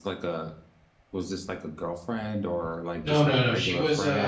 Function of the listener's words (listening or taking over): taking over